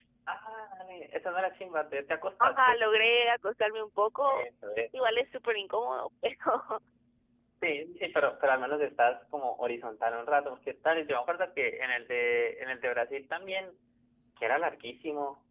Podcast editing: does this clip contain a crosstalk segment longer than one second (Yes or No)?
No